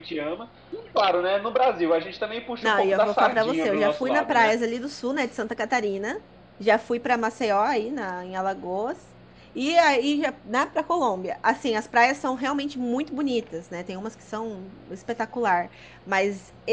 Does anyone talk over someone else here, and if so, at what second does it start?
2.6 s

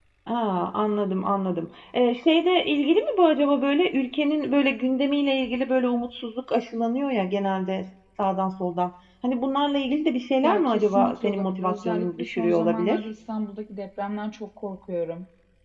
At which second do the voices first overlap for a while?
10.4 s

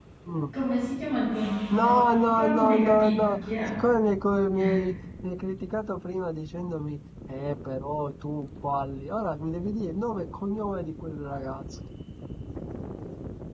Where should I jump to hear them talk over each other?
1.7 s

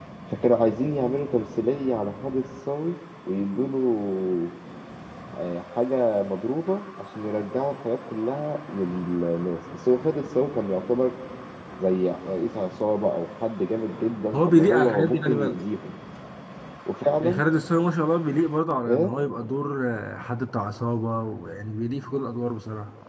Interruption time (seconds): 14.3 s

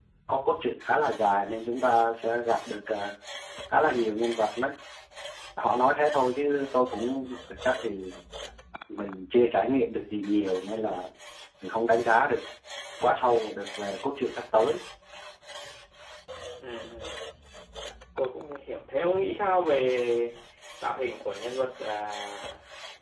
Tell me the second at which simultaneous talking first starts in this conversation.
none

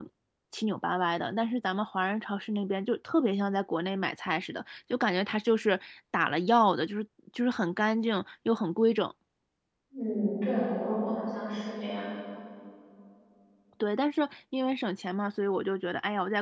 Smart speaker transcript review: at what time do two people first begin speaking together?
none

